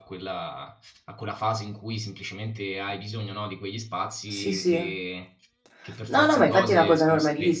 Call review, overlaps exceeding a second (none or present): present